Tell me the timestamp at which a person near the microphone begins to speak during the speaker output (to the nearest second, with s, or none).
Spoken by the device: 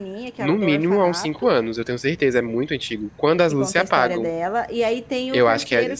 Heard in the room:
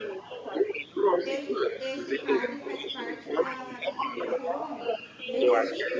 1 s